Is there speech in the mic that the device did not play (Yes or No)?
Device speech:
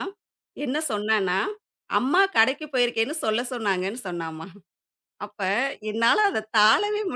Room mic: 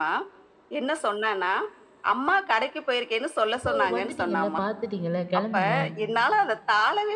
Yes